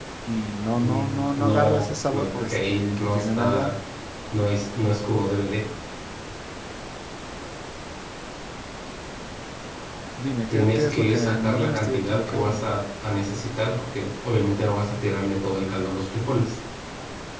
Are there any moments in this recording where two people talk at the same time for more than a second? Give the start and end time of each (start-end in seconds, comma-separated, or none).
0.7-3.7, 10.5-12.7